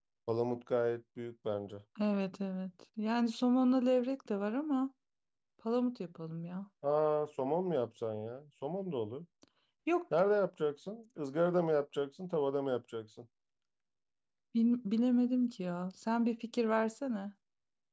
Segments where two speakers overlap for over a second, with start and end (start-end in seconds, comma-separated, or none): none